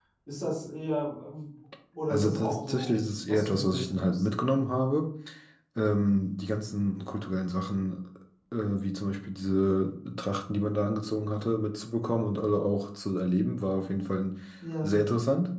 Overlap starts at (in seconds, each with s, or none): 2.1 s